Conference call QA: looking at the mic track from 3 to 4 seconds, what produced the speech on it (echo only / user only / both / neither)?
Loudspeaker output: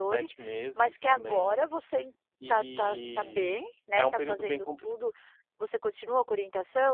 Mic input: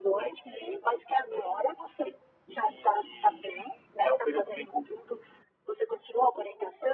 echo only